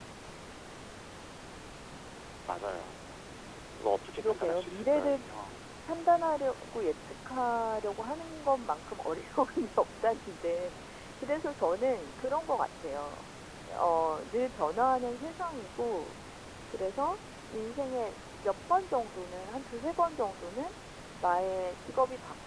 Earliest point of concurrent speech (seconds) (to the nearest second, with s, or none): 4 s